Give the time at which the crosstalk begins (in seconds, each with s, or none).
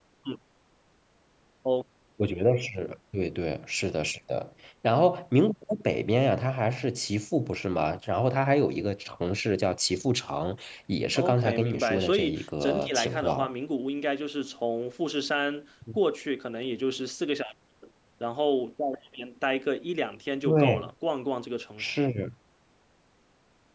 11.2 s